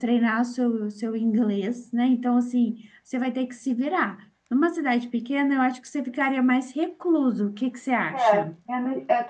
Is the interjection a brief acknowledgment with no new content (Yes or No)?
No